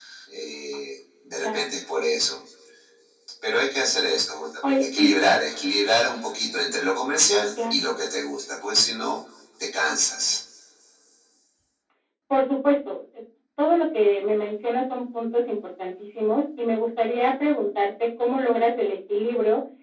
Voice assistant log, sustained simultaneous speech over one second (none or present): none